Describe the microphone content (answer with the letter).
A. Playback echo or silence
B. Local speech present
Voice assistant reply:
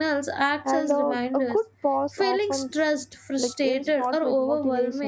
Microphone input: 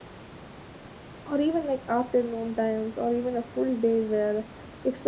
B